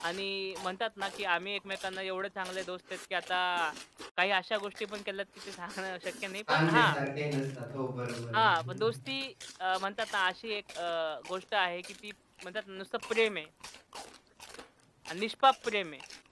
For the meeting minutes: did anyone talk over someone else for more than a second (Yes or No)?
No